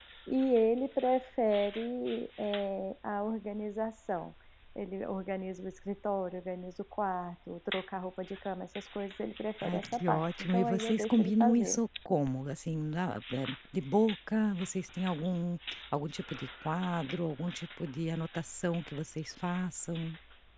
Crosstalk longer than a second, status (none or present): present